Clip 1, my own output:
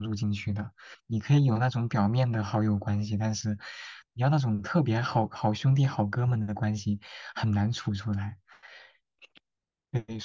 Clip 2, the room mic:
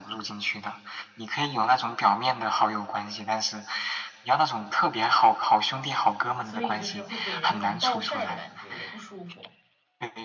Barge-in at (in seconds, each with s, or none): 6.4 s